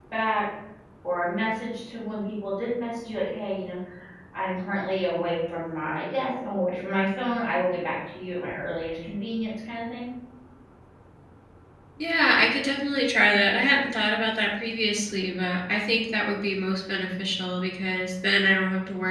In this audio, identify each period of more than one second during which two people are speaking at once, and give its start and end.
none

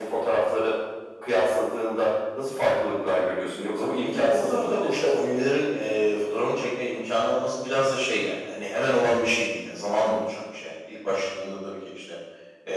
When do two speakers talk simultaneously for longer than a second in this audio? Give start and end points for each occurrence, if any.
3.8-5.2

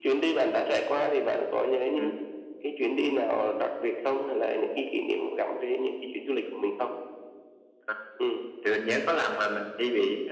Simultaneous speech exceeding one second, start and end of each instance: none

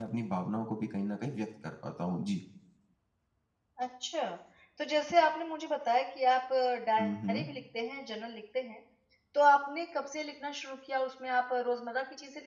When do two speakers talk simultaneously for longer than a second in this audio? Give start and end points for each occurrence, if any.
none

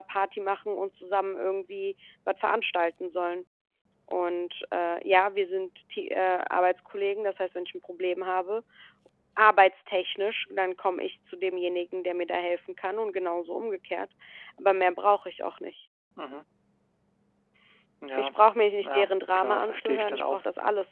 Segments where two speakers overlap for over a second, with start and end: 18.8-20.4

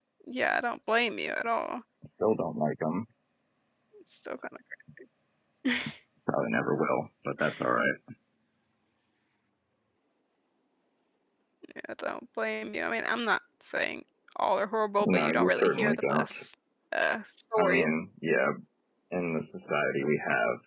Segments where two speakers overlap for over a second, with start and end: 15.1-16.4

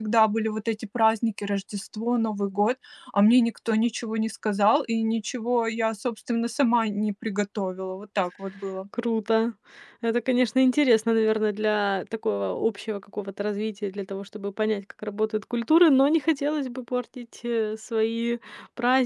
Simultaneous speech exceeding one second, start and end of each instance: none

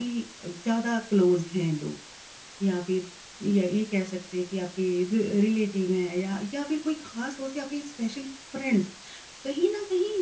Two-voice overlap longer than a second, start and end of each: none

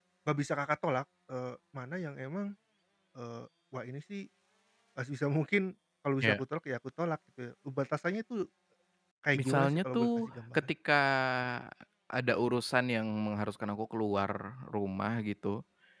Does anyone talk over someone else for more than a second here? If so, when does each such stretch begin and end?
9.3-10.6

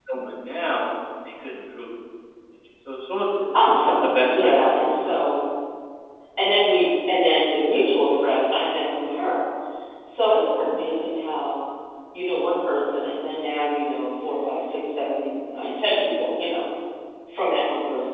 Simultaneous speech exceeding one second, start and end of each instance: 3.8-5.1

